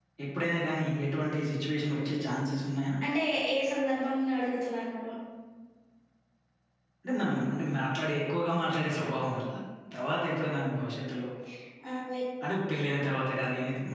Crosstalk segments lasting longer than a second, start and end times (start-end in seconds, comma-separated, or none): none